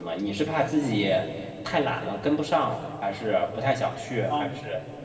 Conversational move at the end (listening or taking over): taking over